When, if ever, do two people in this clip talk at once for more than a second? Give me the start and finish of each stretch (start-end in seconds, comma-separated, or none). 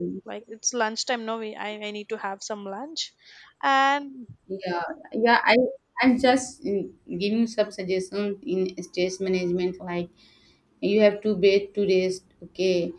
none